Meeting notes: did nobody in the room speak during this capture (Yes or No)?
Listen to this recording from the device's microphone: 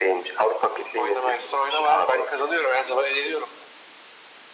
Yes